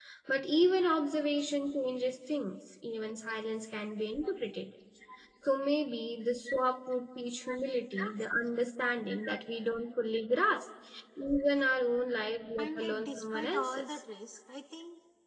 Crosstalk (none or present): present